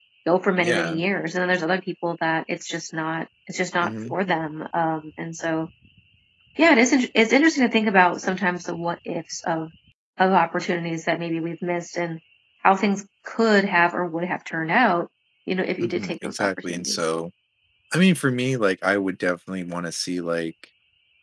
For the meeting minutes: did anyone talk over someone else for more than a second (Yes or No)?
Yes